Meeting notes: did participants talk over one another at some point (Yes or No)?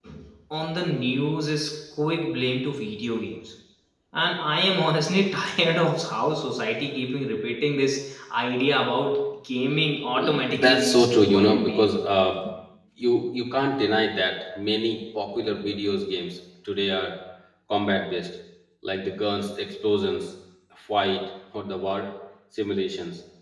Yes